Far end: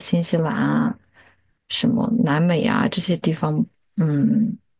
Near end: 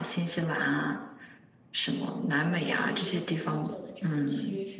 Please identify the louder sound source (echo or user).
echo